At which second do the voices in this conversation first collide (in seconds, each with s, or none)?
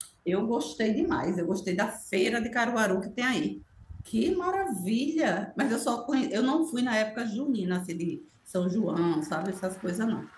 none